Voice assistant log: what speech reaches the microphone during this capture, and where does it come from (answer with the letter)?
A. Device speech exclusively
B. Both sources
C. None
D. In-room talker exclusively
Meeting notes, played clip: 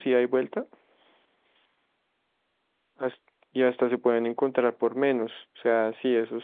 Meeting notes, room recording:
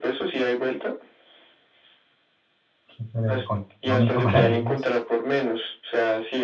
B